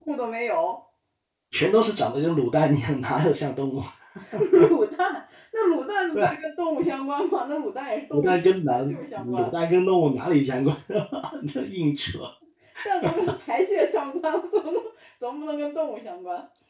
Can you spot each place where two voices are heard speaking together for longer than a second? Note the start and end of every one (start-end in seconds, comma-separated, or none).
8.1-9.5